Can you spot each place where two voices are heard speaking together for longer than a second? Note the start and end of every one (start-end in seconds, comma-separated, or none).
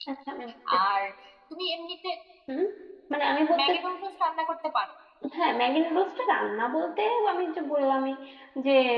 none